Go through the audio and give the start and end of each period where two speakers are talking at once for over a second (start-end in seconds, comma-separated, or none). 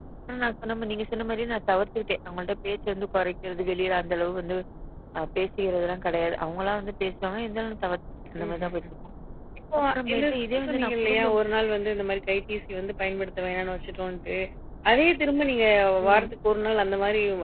9.9-11.4